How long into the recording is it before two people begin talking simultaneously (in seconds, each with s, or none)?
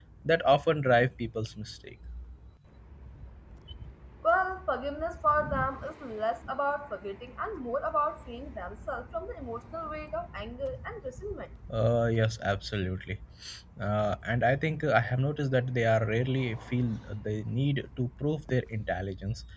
none